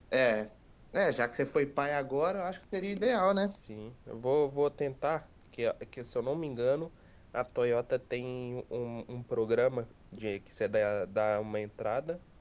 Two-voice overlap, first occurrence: none

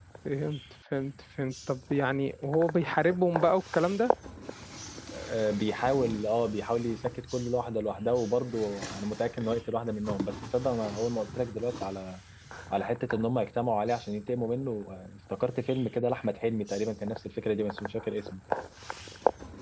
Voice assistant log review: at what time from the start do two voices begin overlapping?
none

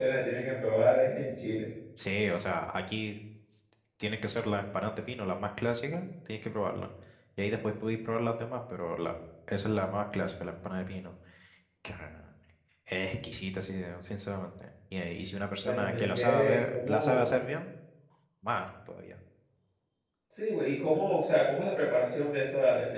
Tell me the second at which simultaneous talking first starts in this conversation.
15.6 s

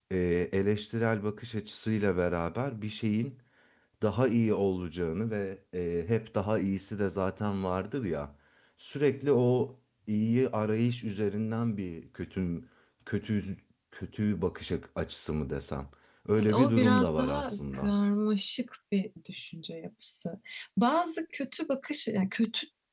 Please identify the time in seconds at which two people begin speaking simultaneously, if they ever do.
16.4 s

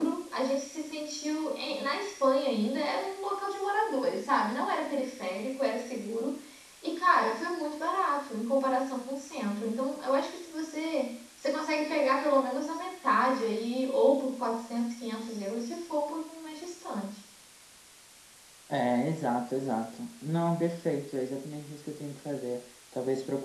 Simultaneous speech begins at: none

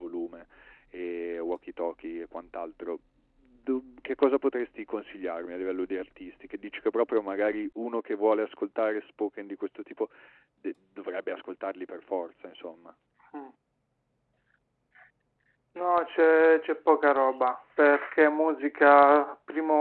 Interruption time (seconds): none

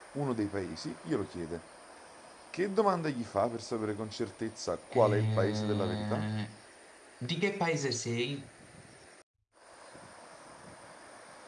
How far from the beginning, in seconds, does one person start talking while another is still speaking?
4.9 s

